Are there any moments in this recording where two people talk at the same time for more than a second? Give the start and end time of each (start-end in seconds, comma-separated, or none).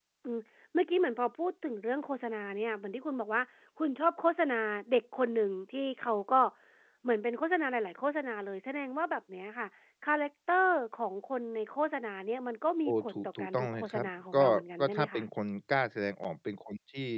12.8-15.3